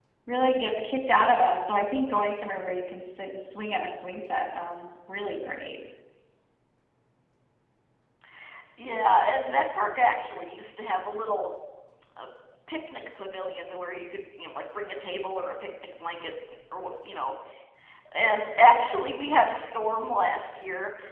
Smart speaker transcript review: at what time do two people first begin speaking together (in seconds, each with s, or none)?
none